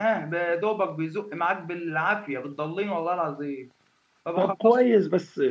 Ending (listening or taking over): taking over